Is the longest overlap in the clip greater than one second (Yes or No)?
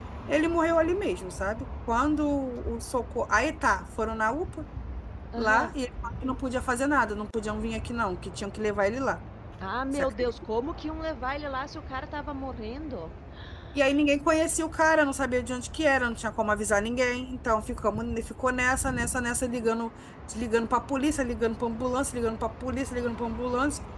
No